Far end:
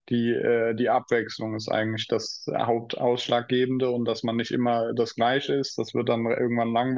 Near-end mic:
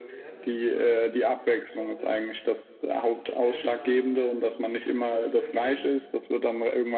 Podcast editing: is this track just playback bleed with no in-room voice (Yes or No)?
No